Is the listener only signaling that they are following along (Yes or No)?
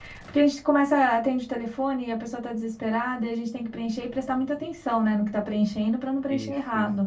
Yes